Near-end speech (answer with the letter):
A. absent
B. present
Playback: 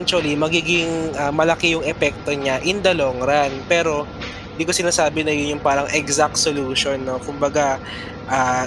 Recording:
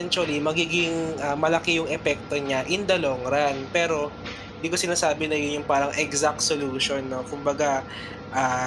A